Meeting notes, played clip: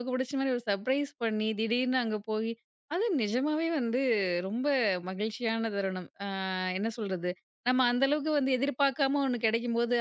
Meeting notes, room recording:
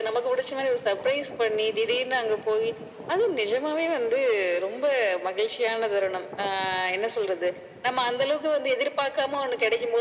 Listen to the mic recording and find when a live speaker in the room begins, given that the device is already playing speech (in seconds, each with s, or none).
none